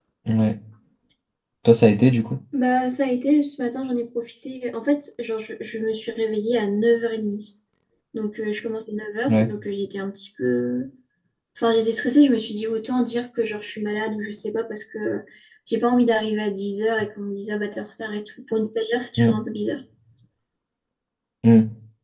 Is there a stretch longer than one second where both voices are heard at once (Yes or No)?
No